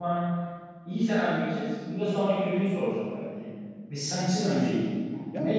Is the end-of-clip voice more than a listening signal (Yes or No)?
Yes